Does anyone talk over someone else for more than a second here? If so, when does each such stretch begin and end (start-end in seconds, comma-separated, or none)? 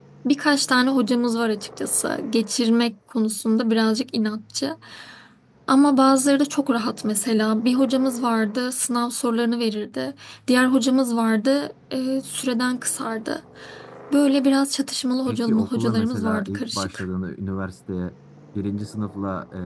15.3-17.0